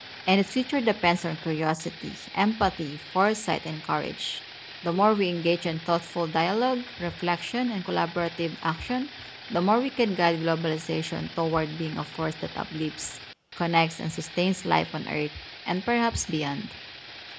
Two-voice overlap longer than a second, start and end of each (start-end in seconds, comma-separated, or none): none